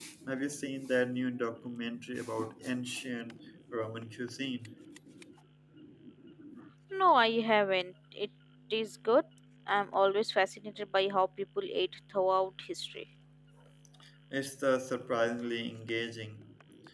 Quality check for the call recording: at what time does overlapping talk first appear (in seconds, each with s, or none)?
none